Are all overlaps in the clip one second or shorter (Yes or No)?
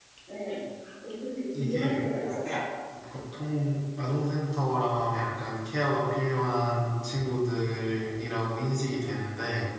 Yes